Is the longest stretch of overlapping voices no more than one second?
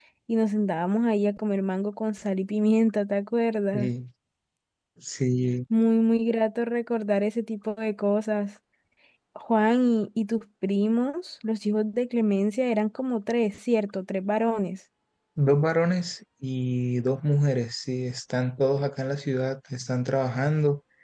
Yes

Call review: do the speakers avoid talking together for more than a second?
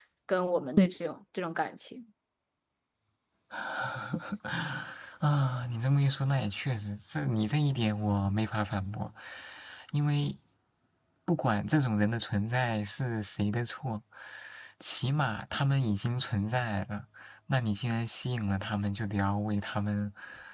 Yes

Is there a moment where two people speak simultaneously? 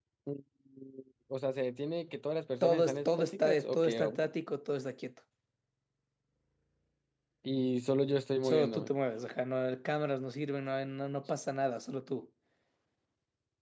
Yes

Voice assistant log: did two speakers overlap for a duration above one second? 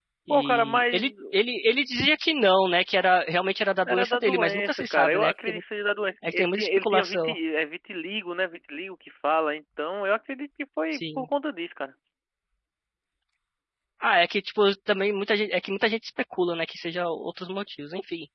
Yes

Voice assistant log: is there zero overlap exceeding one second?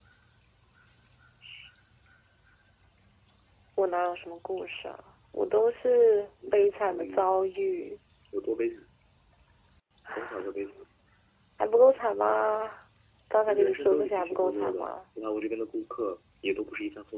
No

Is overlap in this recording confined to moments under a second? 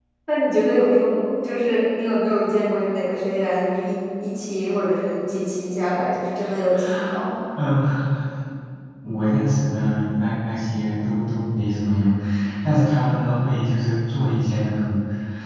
Yes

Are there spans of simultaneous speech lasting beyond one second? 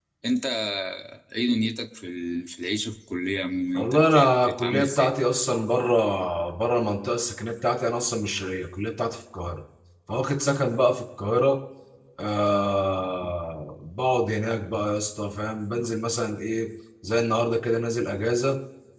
Yes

